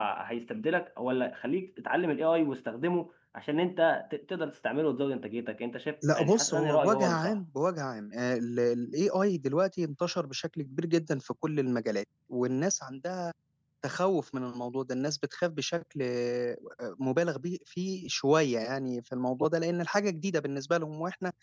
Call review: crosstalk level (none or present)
present